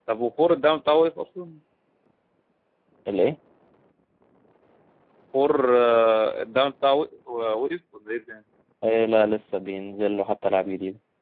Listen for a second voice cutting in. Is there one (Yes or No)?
No